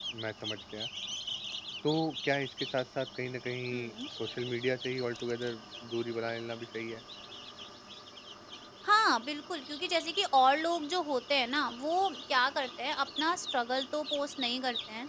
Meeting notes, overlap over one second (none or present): none